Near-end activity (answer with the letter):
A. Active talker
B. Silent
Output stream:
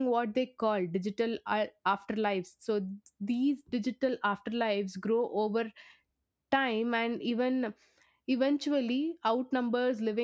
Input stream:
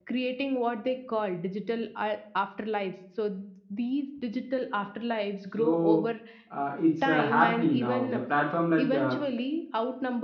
A